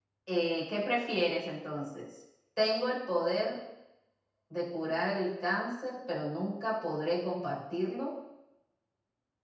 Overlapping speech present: No

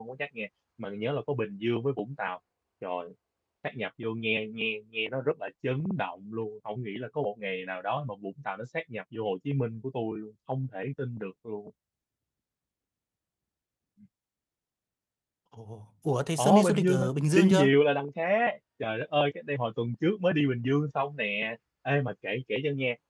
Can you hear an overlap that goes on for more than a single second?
Yes, from 16.4 s

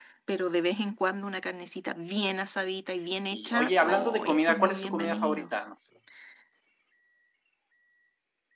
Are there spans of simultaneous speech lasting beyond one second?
Yes, from 3.2 s

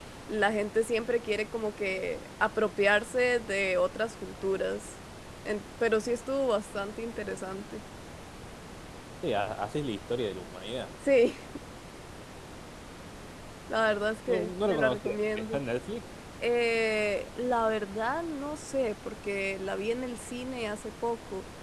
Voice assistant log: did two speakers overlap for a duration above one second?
Yes, from 14.3 s

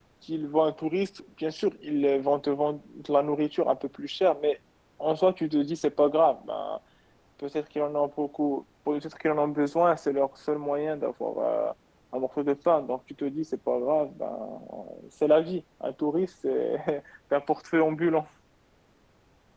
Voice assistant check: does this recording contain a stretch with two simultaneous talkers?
No

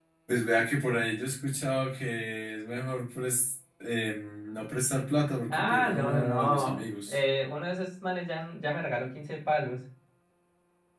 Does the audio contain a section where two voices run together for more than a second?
Yes, from 5.5 s

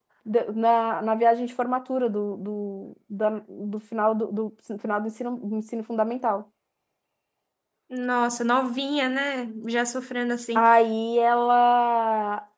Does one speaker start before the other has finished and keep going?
No

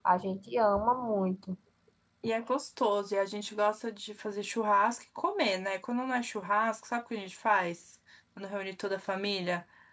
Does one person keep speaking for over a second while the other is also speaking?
No

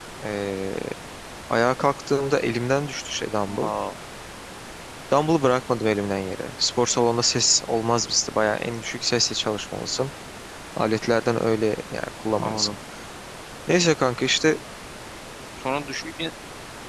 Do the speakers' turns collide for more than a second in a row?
No

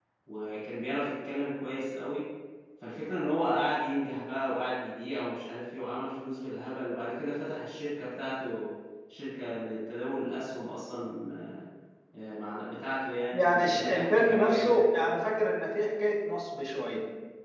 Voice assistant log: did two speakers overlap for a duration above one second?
Yes, from 13.3 s

